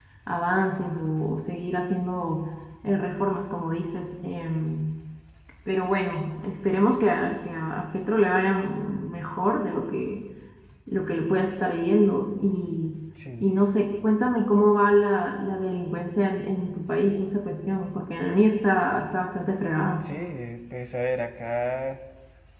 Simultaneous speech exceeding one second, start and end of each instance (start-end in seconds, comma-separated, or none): none